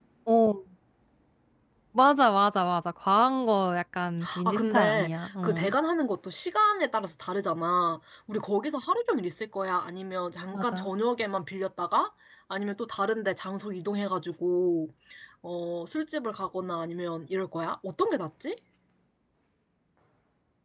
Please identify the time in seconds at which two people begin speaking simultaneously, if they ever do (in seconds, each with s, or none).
4.5 s